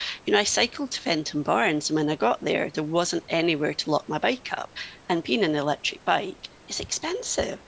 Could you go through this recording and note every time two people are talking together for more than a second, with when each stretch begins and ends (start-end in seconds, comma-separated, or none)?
none